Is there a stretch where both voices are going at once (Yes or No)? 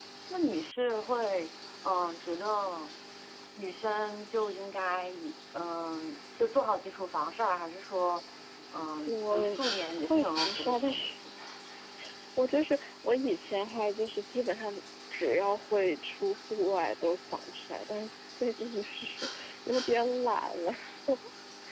Yes